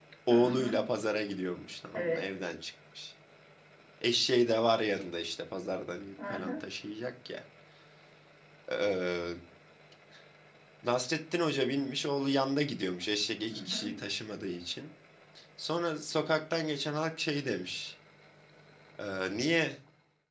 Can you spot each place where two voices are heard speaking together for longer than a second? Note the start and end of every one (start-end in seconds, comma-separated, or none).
none